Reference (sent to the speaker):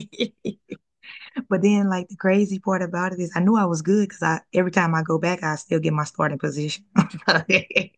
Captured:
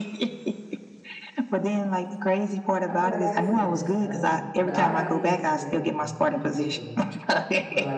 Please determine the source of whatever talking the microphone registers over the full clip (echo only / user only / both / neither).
both